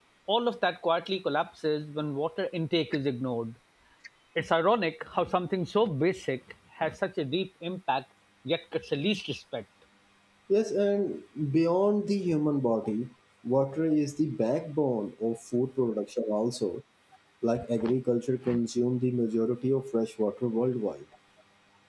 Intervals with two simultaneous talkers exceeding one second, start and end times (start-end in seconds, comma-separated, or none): none